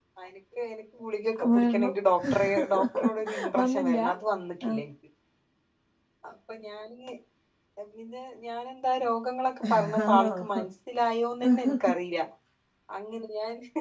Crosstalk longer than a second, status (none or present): present